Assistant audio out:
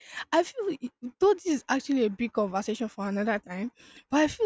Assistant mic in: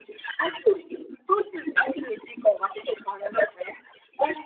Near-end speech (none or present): none